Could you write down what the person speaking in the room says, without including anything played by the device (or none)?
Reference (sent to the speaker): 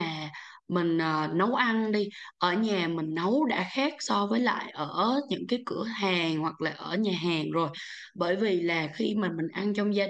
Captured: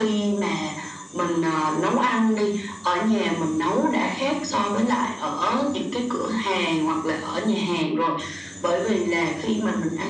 none